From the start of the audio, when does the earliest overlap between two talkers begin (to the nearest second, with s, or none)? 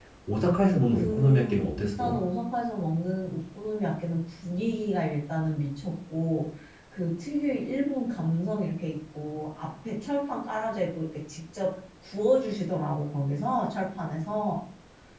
1 s